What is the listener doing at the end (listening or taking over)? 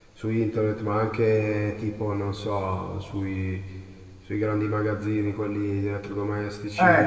taking over